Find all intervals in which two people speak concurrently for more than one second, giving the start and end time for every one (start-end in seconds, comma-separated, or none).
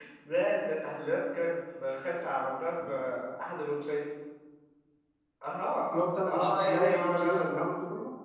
5.9-7.6